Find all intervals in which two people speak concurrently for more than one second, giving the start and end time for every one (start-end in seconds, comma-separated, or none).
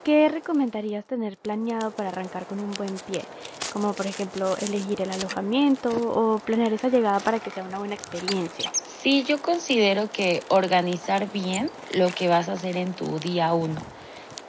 none